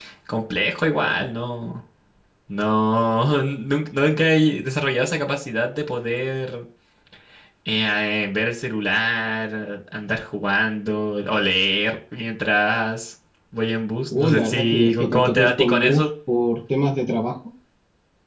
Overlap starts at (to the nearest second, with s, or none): 14 s